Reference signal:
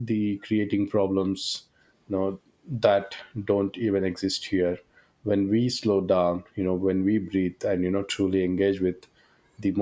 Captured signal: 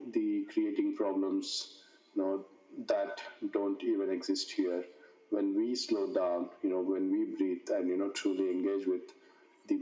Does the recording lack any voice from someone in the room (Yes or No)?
Yes